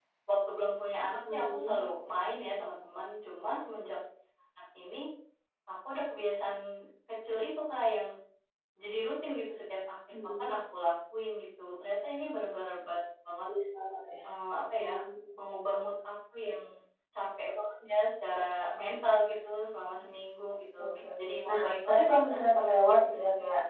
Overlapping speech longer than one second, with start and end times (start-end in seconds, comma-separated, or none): 20.8-22.4